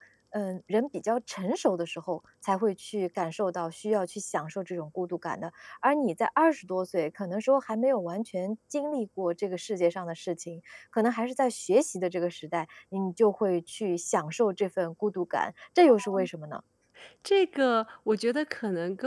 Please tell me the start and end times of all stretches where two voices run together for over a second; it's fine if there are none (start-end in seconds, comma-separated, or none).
none